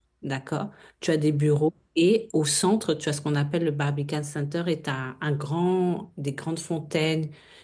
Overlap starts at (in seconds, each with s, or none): none